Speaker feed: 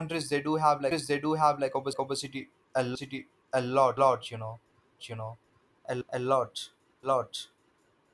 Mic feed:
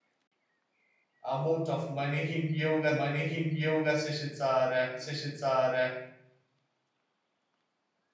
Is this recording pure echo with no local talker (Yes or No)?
No